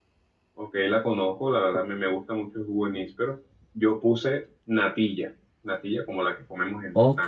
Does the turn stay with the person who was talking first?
No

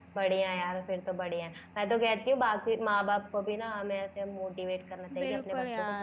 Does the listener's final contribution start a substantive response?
Yes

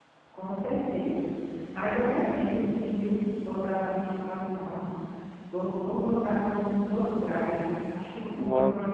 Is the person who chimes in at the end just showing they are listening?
Yes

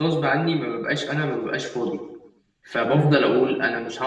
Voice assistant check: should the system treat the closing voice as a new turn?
No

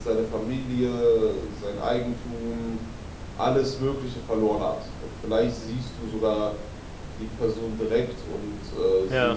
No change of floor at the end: Yes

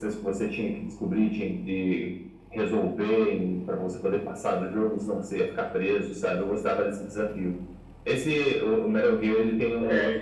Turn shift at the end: No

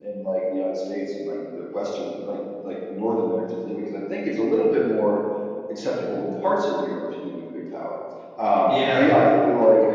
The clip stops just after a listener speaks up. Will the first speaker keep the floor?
Yes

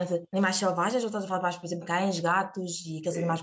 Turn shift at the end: Yes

